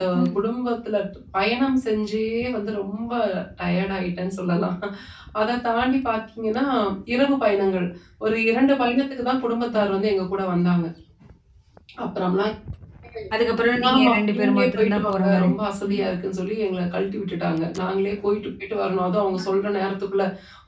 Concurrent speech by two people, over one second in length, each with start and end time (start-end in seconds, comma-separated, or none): 13.9-15.5